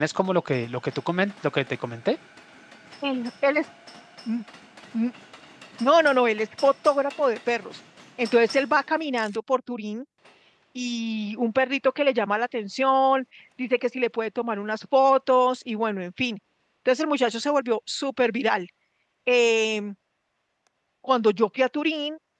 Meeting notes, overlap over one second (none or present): none